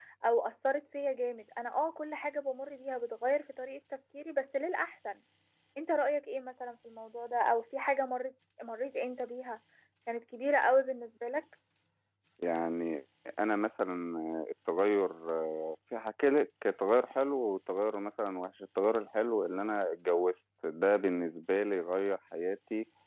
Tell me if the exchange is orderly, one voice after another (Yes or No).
Yes